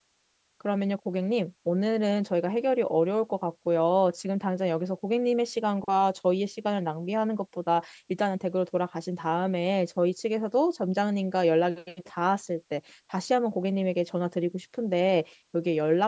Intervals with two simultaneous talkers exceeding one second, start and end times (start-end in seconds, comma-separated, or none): none